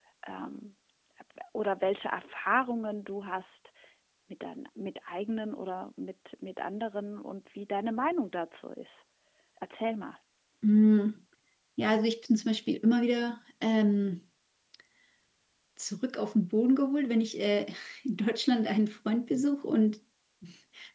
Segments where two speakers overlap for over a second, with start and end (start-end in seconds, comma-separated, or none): none